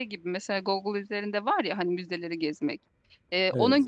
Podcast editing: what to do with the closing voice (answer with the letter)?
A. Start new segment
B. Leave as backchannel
B